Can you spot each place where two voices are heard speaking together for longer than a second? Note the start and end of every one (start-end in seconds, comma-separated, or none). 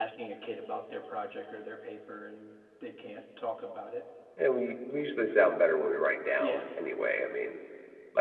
none